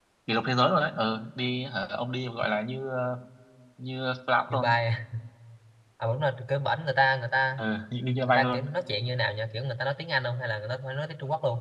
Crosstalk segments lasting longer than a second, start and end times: none

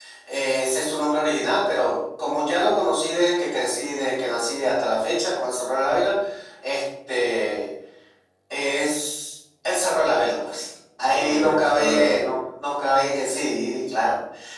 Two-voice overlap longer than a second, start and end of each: 11.1-12.4

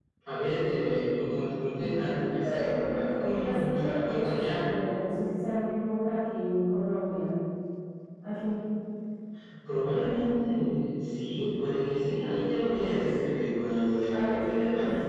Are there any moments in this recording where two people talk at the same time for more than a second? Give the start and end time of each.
2.4-4.5

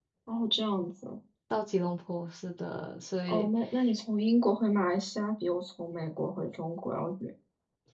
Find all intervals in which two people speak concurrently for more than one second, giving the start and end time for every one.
none

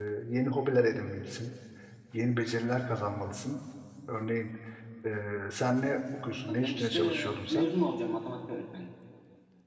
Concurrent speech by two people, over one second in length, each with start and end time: 6.5-7.7

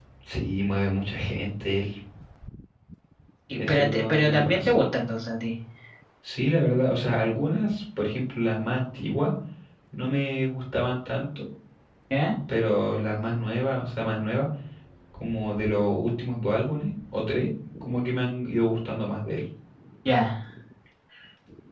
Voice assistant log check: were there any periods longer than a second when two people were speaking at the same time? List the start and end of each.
3.5-4.8

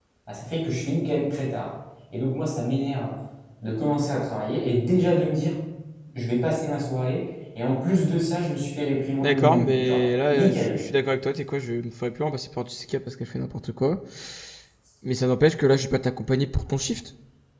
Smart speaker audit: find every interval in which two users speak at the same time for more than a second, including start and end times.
9.2-10.8

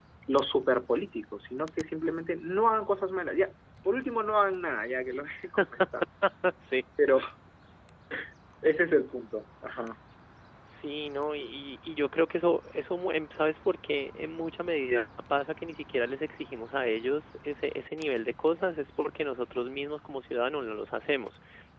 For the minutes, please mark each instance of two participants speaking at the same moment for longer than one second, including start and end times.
none

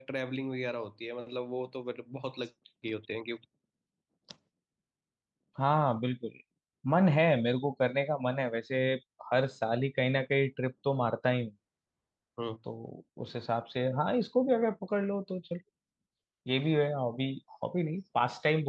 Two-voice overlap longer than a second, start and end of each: none

